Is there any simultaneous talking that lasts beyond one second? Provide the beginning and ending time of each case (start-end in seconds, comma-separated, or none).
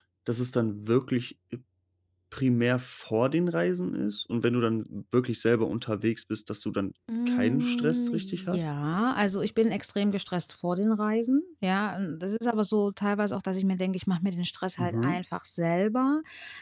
7.3-8.7